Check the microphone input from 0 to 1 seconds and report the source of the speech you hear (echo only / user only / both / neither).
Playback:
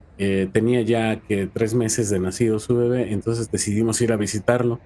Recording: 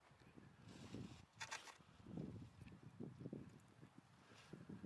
neither